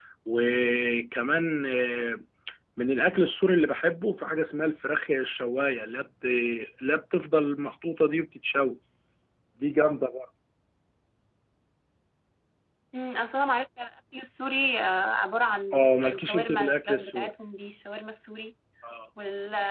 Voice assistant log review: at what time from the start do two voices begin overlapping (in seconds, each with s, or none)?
15.7 s